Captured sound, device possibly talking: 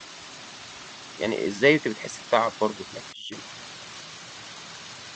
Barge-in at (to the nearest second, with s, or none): 1 s